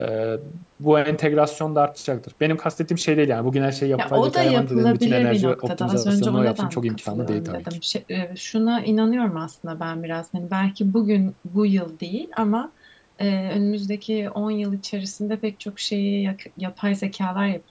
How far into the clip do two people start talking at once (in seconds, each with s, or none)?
4.0 s